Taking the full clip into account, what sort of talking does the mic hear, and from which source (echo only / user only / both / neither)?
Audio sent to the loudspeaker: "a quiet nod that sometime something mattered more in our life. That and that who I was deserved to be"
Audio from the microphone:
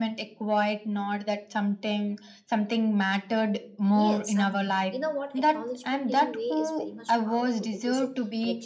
both